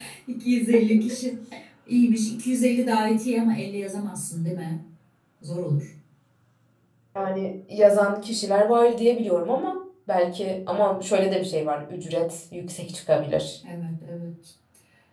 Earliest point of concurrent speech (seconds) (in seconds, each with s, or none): none